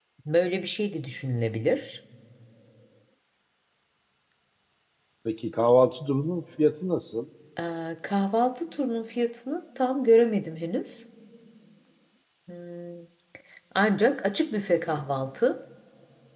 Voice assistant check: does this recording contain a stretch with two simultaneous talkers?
No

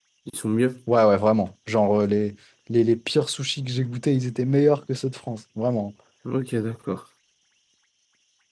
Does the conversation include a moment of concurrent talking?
No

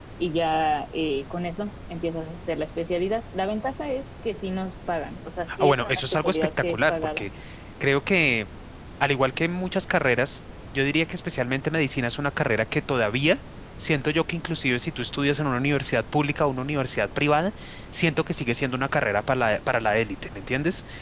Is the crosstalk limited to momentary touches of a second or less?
No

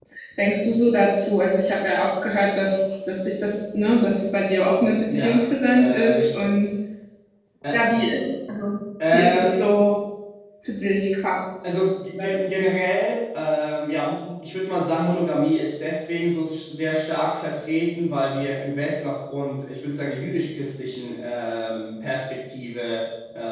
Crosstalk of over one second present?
Yes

